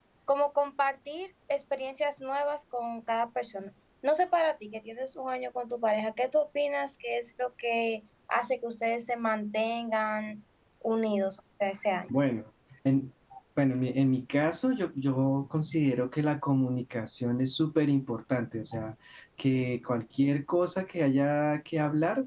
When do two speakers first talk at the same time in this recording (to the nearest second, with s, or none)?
none